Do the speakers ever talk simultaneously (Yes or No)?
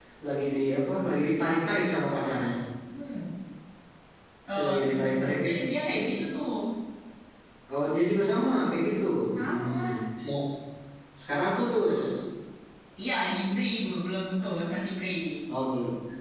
Yes